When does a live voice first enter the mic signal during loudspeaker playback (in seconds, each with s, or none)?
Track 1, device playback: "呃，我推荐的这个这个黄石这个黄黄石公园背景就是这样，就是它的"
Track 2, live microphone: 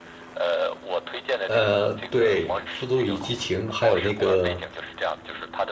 1.4 s